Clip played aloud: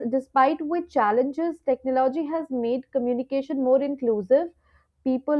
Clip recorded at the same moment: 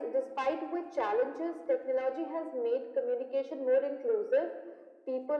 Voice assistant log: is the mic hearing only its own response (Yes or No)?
Yes